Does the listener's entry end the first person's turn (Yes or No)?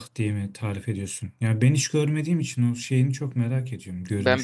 Yes